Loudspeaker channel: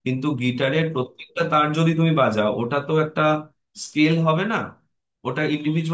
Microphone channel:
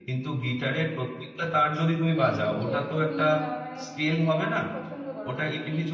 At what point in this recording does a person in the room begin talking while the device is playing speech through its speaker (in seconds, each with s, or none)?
2.1 s